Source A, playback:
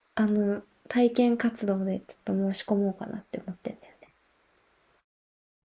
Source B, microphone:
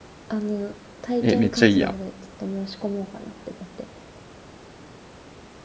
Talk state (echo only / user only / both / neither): both